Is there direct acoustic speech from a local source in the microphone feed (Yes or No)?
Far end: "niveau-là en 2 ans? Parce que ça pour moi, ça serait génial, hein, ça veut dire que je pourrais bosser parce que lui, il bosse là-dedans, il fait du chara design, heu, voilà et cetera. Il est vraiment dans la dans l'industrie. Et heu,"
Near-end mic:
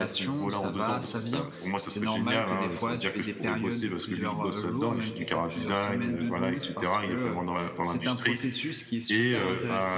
Yes